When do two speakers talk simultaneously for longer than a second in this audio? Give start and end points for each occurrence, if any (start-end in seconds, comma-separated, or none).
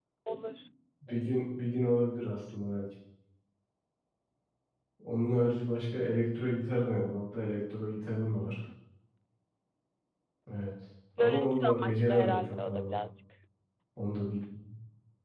11.2-13.0